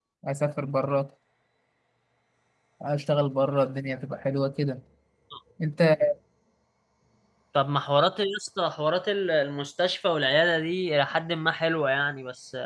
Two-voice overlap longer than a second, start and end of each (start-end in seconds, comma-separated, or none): none